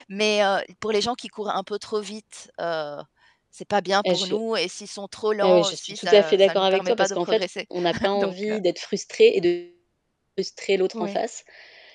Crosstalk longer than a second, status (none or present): present